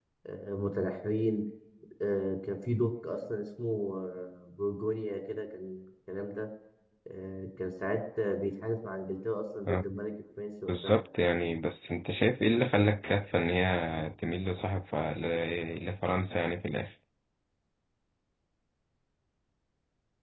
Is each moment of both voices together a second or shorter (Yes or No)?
Yes